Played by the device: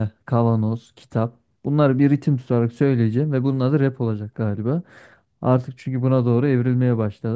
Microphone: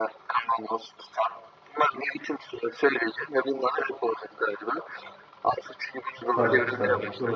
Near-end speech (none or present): present